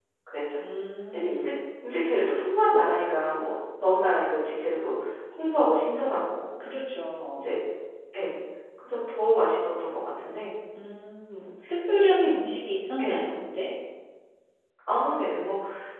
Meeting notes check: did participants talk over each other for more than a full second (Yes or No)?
No